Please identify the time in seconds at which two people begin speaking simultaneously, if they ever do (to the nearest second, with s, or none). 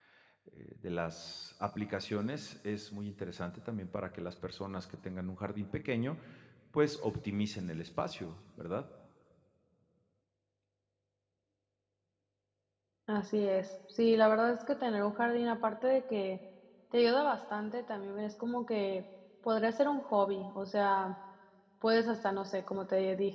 none